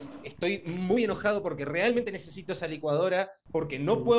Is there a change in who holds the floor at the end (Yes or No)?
No